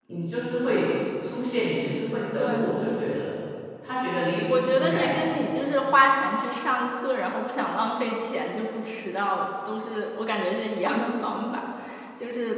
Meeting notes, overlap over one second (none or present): none